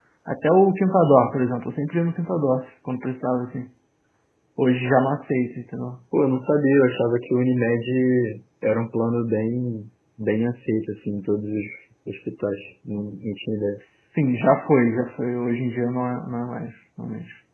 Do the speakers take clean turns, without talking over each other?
Yes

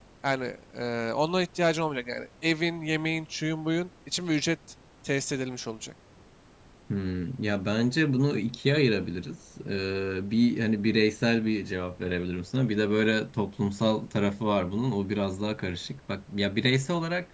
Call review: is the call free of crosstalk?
Yes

